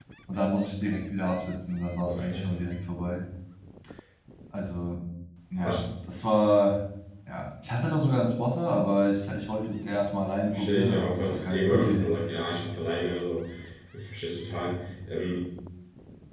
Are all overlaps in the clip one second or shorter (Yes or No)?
No